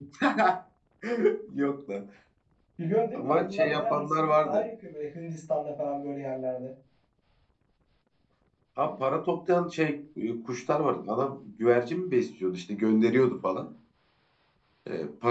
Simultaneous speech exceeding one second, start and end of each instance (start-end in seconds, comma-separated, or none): 3.1-4.7